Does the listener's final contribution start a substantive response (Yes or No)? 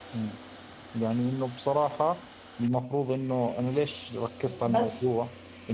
No